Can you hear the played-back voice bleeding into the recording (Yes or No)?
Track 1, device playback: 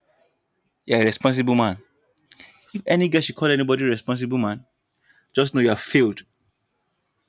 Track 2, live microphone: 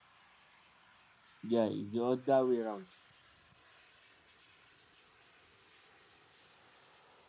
No